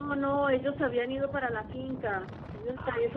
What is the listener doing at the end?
listening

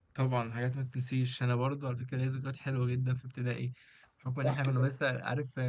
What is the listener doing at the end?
listening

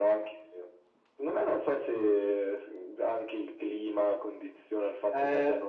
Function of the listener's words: taking over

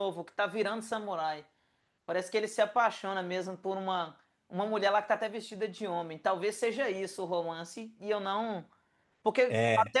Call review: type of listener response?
listening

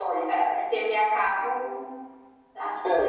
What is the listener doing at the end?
listening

